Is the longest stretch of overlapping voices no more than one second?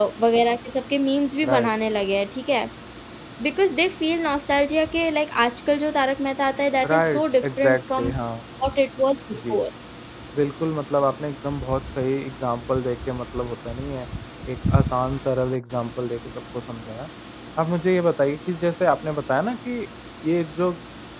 No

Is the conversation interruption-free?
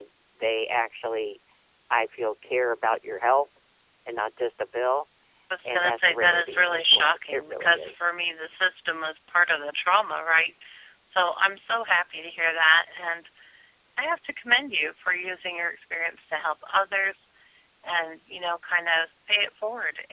No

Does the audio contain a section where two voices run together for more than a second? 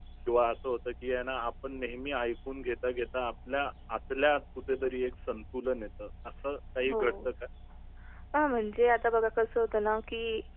No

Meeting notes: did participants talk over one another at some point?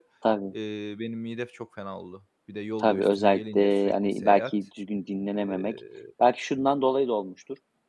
Yes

